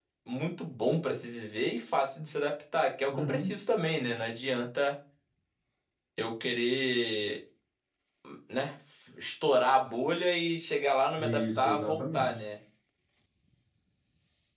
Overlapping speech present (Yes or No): Yes